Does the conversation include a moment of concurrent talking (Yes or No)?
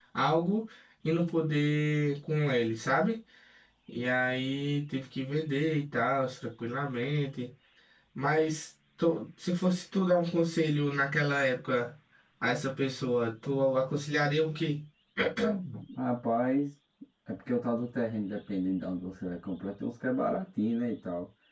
No